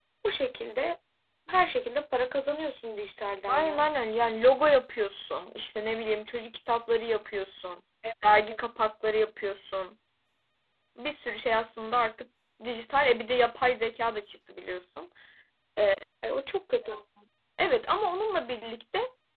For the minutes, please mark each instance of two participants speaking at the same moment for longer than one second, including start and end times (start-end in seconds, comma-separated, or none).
none